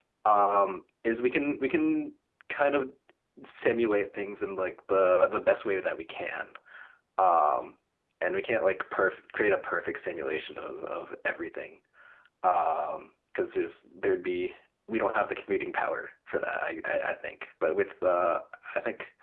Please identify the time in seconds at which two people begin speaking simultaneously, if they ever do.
none

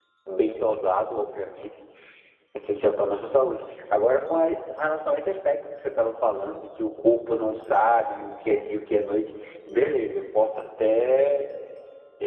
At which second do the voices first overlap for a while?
none

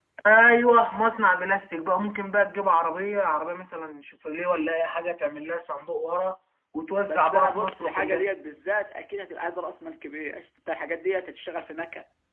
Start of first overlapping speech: 7.1 s

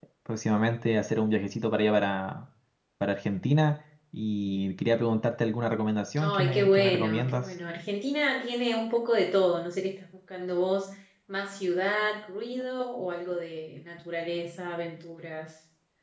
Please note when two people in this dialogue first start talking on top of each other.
6.2 s

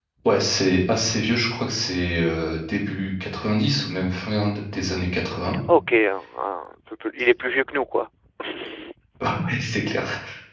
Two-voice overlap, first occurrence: none

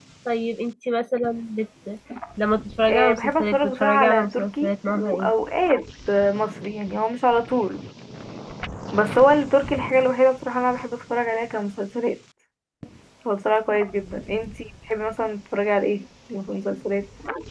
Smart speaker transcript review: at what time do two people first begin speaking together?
2.9 s

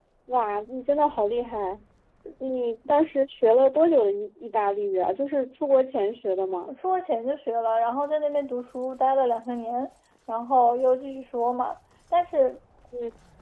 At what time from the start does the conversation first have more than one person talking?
none

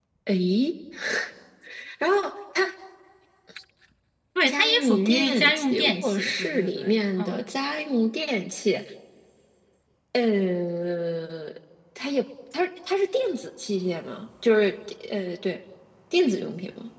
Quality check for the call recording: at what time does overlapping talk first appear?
4.5 s

